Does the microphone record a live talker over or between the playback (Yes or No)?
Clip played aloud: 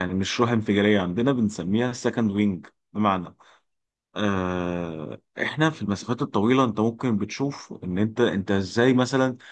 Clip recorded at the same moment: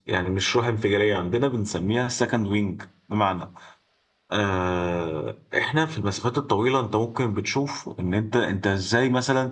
No